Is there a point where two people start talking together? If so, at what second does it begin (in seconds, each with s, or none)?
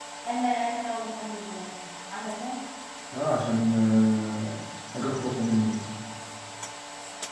none